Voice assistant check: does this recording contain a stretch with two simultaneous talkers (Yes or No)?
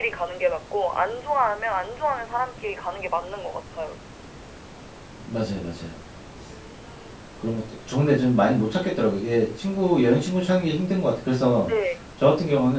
No